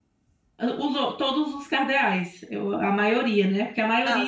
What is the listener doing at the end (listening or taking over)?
taking over